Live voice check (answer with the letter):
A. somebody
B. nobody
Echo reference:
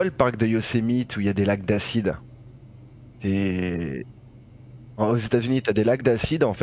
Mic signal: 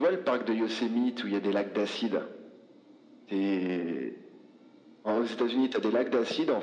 B